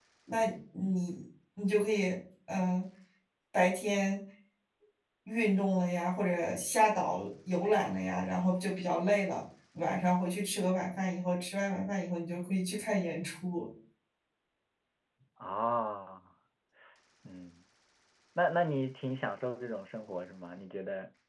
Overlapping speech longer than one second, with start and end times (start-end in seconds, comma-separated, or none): none